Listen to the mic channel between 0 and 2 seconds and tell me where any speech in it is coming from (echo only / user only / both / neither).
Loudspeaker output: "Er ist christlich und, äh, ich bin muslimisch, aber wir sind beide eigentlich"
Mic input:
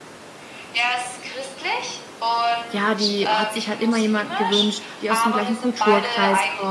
echo only